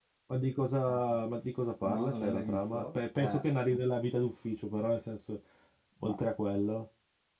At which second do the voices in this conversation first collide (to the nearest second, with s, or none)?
2 s